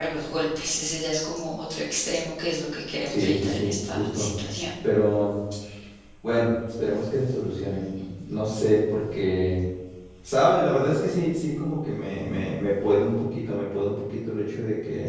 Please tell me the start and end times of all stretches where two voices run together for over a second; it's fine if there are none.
3.1-4.3

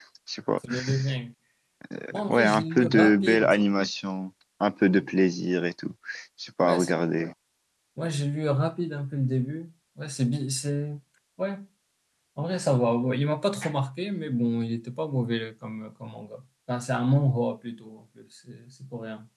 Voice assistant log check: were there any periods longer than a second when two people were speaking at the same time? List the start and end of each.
2.3-3.5

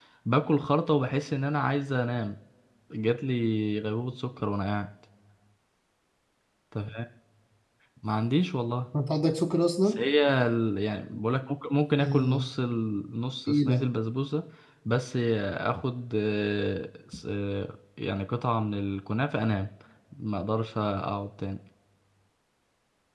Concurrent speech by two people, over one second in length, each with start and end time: none

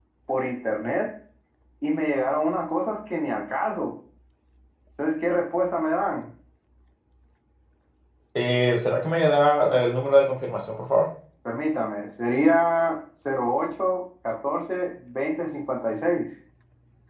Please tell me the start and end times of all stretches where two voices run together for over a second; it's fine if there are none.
none

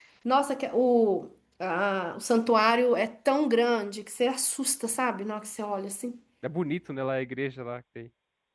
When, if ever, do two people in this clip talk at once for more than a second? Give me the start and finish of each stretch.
none

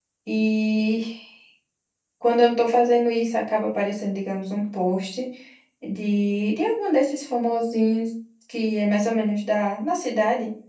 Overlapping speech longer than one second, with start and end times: none

